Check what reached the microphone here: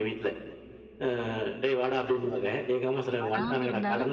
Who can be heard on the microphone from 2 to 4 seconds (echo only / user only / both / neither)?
both